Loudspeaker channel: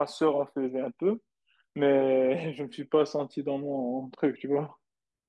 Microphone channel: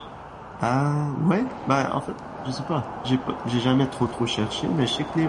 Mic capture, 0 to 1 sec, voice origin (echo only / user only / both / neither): user only